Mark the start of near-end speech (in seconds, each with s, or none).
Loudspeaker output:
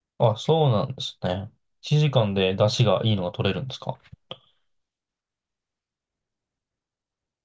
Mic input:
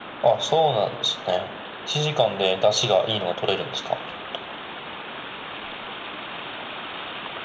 none